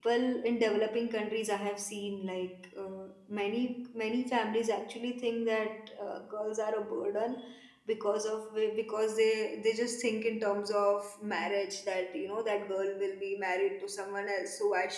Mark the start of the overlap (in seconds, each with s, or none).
none